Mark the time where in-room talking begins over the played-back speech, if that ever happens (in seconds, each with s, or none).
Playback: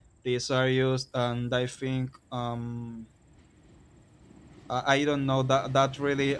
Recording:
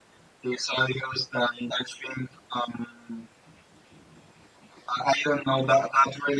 none